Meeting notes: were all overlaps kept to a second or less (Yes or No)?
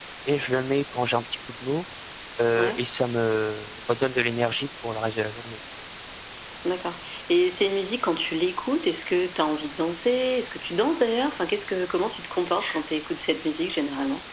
Yes